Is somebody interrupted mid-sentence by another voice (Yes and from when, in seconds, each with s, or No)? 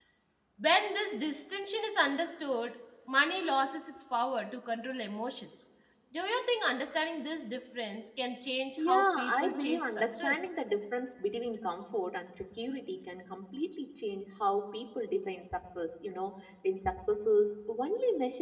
Yes, from 8.8 s